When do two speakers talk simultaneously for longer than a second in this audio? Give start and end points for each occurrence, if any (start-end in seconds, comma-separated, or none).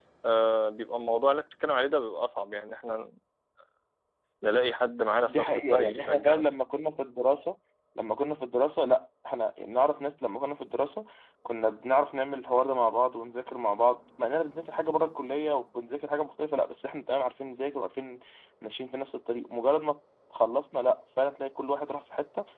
5.2-6.4